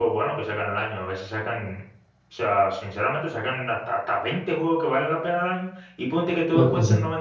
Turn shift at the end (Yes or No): No